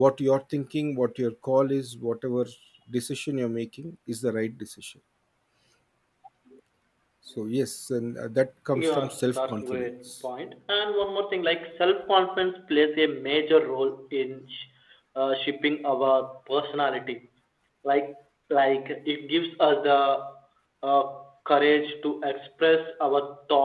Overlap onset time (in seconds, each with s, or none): 8.7 s